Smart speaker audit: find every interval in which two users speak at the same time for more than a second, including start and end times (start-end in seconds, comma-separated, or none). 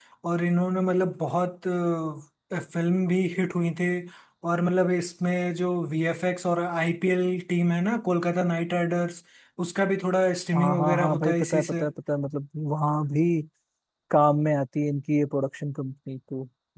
10.6-11.8